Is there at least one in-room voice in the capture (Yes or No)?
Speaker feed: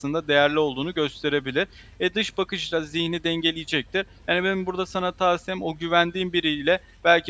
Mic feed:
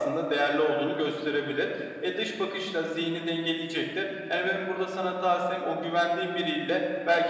No